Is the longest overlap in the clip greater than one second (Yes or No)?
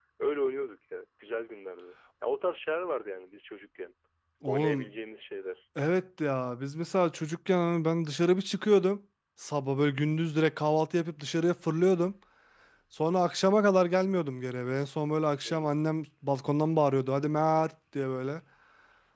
No